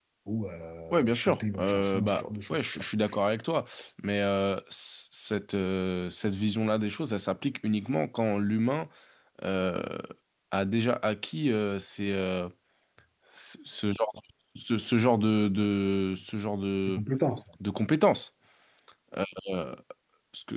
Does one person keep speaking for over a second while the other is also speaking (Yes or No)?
Yes